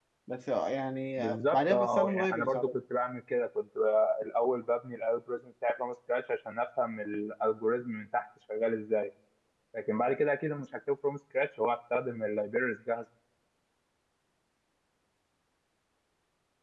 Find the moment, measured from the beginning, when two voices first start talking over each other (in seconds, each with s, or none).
1.2 s